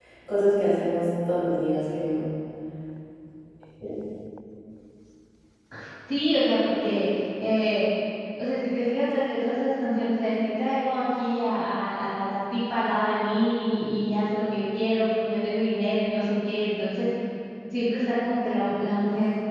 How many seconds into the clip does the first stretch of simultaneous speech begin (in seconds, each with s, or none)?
none